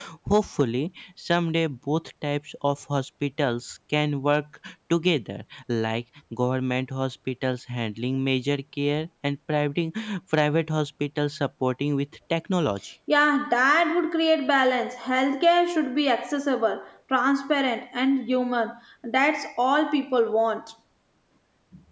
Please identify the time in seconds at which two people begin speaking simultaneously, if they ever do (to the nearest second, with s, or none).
none